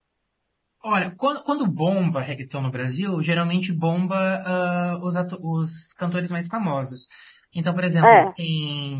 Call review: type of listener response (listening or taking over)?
listening